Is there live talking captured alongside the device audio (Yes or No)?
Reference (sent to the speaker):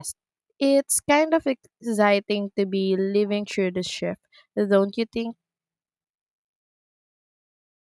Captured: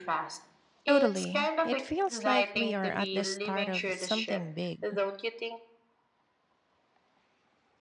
Yes